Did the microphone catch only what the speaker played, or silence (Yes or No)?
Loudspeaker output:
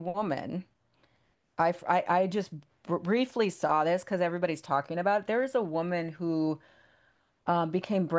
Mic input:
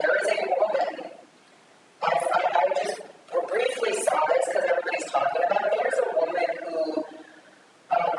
Yes